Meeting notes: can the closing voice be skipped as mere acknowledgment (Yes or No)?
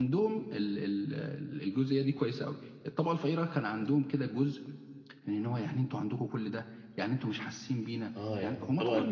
No